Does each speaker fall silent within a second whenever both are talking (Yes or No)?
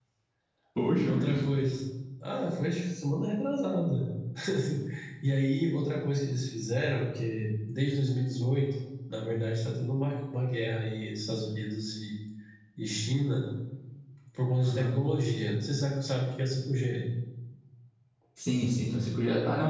Yes